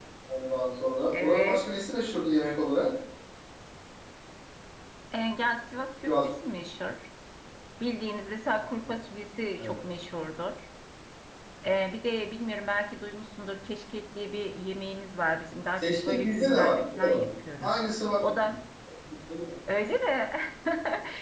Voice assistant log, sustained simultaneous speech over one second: present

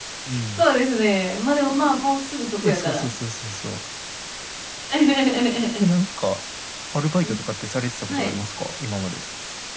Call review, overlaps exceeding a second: none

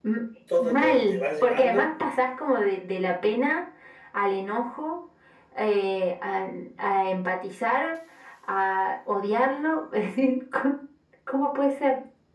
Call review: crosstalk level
present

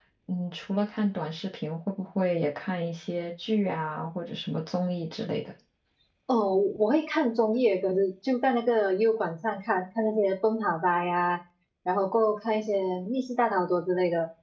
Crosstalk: none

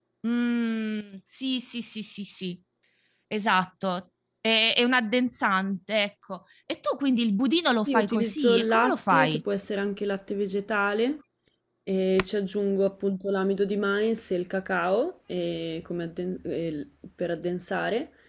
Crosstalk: present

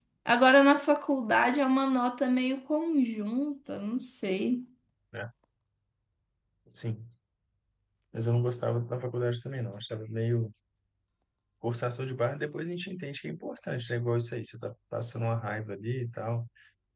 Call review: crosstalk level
none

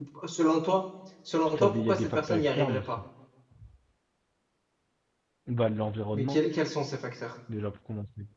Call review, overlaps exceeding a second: present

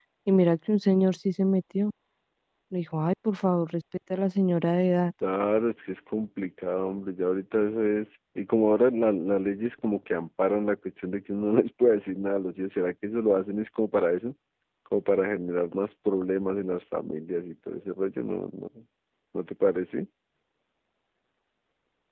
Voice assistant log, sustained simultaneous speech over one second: none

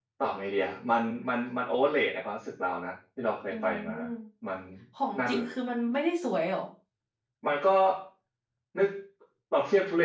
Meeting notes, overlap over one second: none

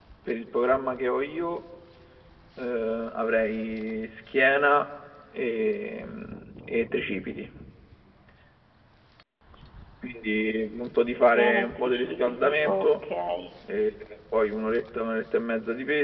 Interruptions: present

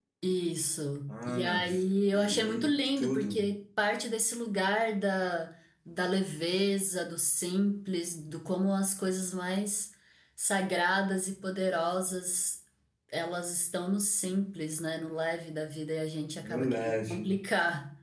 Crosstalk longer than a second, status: present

